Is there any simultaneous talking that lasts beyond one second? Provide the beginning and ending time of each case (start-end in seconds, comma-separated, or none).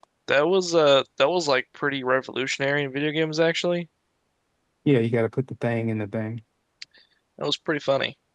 none